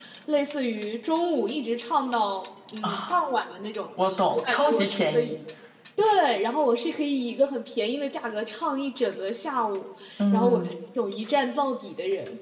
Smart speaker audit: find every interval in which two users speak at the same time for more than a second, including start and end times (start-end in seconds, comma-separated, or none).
4.0-5.3